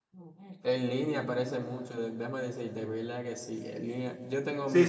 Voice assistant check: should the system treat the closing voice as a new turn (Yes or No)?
Yes